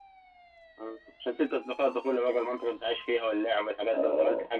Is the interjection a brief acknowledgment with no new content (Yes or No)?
No